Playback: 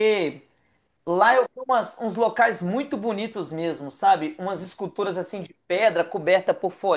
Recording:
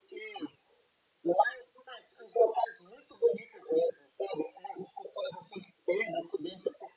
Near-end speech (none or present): none